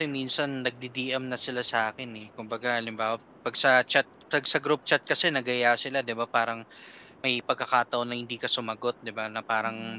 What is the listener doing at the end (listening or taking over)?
listening